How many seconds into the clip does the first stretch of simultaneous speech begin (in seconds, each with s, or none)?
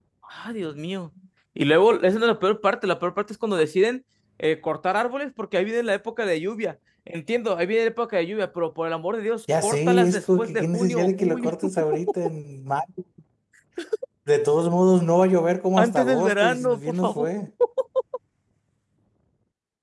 9.6 s